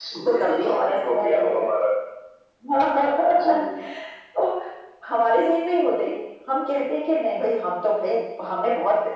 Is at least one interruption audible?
Yes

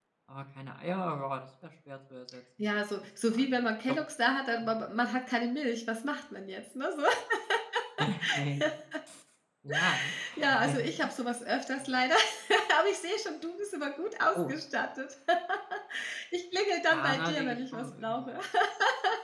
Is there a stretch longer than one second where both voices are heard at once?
Yes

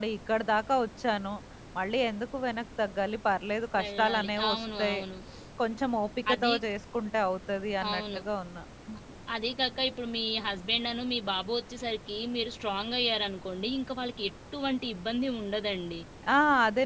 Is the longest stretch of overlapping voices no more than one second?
No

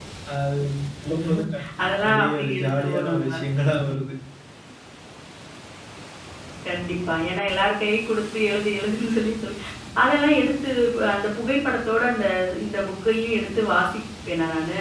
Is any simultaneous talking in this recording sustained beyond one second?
Yes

